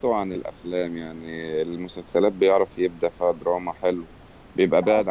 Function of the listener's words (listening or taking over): listening